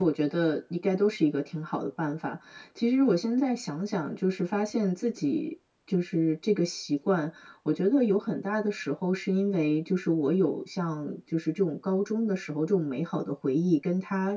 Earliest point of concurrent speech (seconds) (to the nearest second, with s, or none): none